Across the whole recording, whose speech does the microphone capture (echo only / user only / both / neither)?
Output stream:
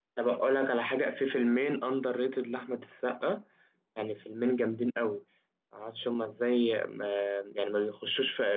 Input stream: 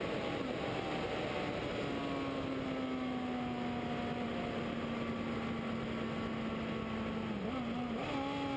neither